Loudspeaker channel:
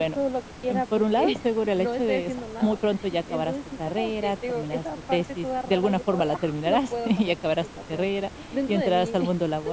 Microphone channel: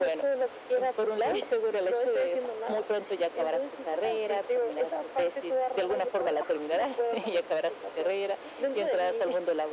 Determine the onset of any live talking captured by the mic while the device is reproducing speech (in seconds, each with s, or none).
none